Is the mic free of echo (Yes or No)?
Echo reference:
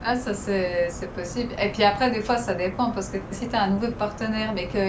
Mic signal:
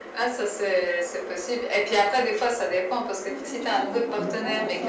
No